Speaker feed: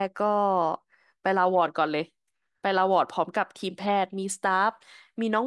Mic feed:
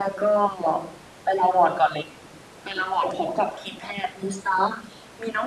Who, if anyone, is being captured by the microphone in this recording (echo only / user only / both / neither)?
echo only